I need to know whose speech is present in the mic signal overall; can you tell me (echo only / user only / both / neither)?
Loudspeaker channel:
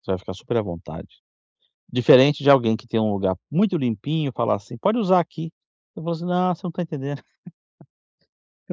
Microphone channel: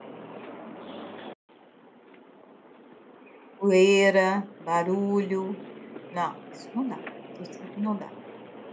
user only